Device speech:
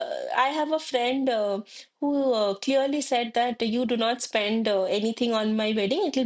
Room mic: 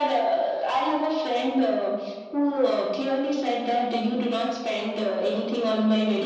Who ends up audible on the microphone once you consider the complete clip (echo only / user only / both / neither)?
echo only